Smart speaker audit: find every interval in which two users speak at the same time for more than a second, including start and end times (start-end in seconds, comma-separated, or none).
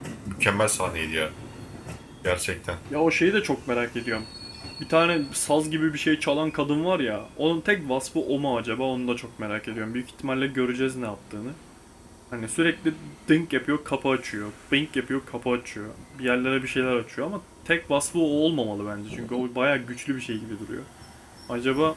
none